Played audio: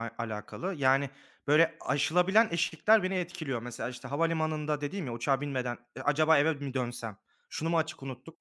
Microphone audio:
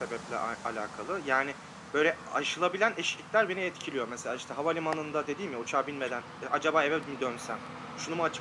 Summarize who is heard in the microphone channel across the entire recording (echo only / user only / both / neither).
echo only